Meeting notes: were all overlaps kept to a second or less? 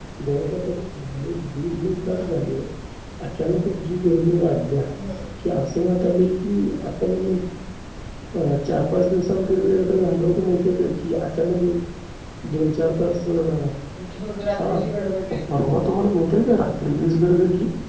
Yes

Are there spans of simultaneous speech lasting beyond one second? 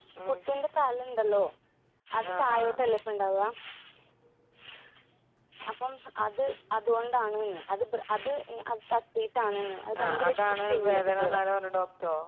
Yes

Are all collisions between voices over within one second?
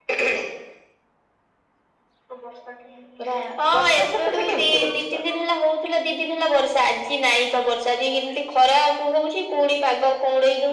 No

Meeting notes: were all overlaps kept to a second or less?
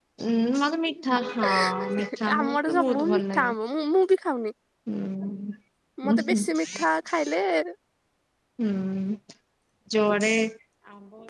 No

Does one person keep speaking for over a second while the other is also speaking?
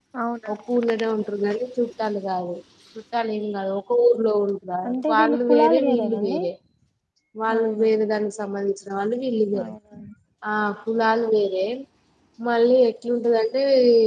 Yes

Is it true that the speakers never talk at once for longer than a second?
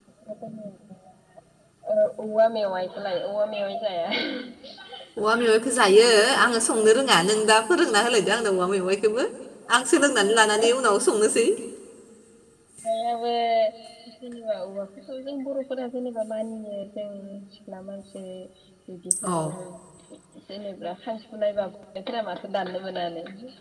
Yes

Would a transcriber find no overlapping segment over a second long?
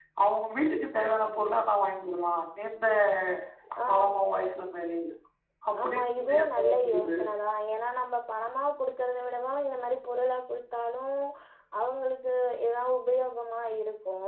No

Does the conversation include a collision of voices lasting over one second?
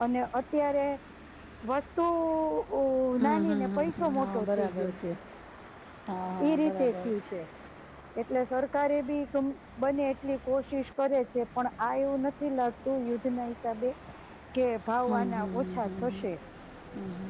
Yes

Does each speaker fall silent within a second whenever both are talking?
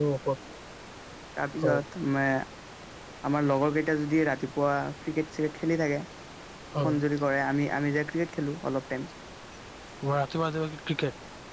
Yes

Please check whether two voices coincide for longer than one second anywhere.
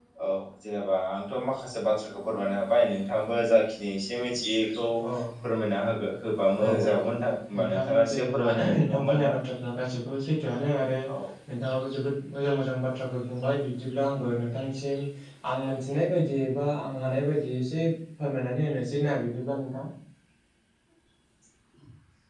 Yes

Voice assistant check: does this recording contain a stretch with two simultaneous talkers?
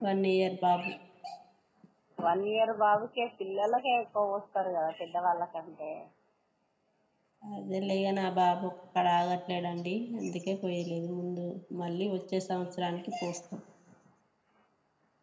No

